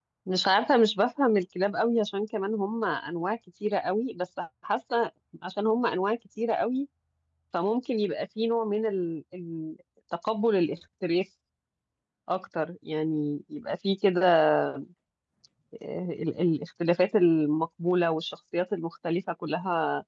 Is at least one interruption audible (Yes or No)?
No